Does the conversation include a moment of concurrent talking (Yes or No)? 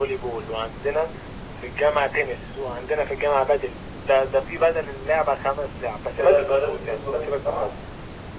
Yes